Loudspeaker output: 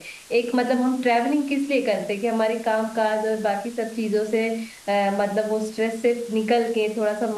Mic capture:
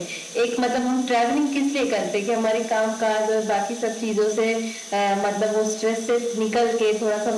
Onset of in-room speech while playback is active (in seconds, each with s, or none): none